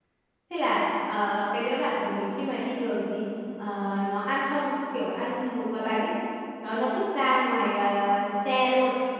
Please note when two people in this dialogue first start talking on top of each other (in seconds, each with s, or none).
none